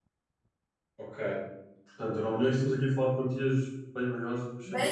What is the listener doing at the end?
taking over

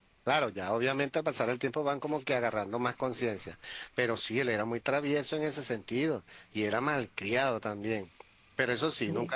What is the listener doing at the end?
listening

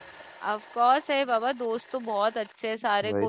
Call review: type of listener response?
listening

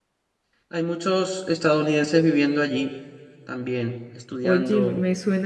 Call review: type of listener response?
taking over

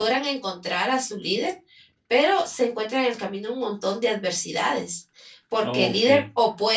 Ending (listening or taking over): listening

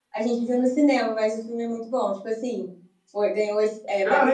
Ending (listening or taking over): taking over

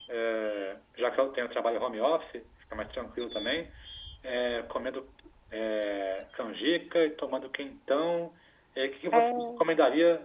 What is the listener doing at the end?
listening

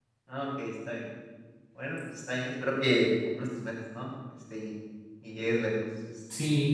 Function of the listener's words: taking over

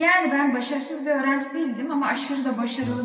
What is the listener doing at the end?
listening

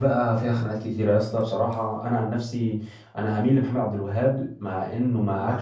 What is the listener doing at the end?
taking over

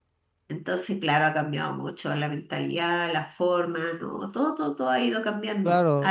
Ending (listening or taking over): taking over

